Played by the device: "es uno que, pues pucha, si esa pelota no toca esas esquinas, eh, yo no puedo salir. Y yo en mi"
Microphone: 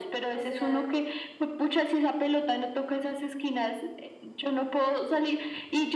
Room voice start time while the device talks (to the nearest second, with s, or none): 0 s